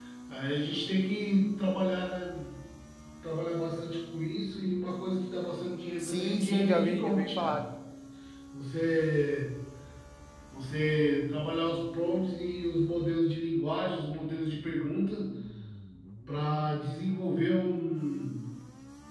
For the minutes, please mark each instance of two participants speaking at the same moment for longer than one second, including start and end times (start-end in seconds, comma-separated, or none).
6.0-7.6